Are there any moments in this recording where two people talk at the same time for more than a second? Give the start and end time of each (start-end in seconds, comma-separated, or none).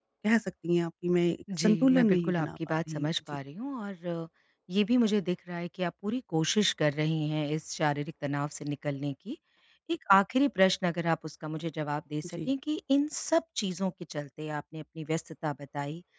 1.6-3.1